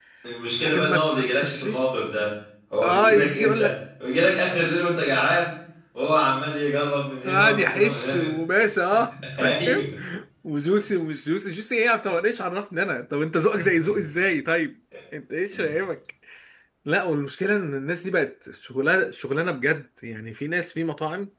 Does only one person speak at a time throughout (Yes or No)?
No